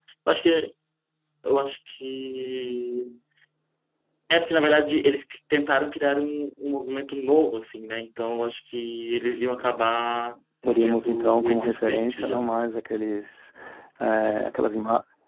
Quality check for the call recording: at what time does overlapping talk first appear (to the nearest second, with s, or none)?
11 s